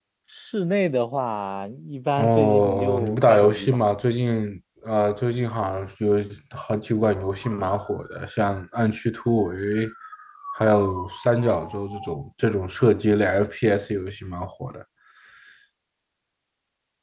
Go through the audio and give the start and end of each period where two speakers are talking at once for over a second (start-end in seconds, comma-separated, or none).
2.2-3.8